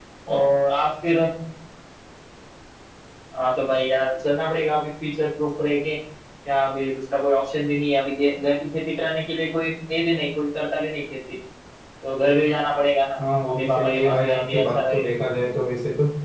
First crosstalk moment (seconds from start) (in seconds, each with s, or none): 13.4 s